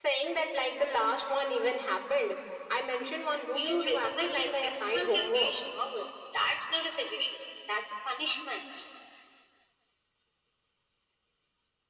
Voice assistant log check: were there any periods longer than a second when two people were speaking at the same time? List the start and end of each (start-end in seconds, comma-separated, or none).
3.5-5.5